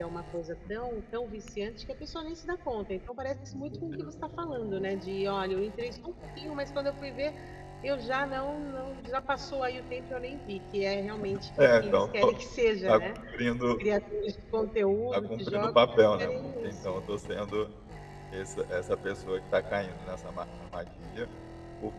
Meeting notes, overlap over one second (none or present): present